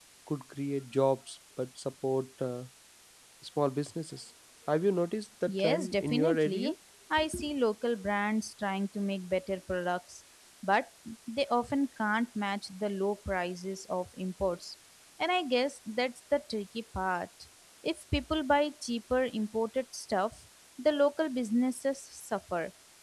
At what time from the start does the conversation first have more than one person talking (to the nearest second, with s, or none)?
5 s